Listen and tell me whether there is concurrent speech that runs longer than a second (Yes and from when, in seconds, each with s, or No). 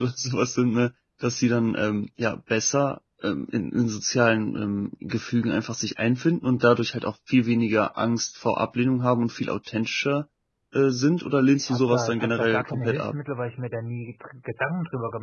Yes, from 11.6 s